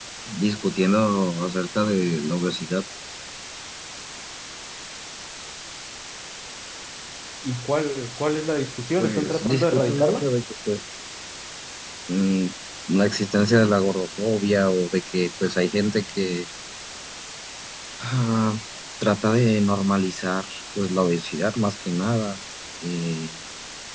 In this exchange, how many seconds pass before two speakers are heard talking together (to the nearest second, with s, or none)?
9 s